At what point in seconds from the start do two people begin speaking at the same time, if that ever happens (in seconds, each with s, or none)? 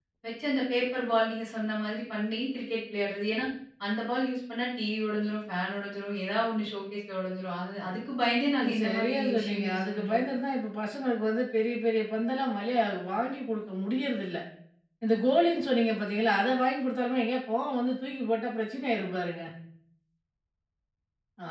8.6 s